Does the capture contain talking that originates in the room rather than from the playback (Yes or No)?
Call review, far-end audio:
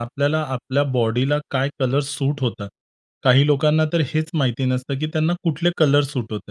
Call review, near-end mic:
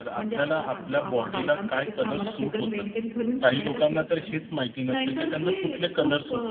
Yes